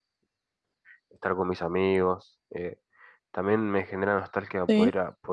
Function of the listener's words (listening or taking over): listening